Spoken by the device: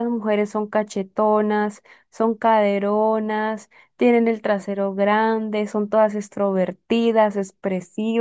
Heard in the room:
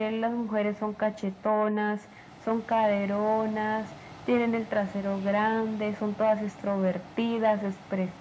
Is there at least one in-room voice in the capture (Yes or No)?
No